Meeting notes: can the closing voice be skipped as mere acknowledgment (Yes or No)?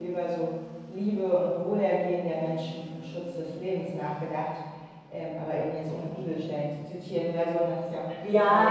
No